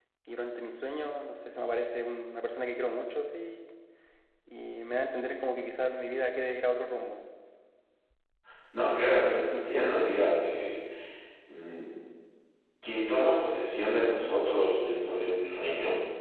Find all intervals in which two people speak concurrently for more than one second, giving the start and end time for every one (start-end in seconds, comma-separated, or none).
8.9-10.2